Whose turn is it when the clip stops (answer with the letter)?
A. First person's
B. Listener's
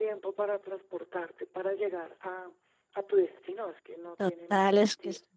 B